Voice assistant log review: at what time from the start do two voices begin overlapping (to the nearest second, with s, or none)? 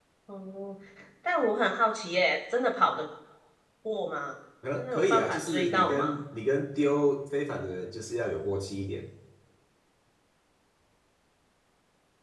5 s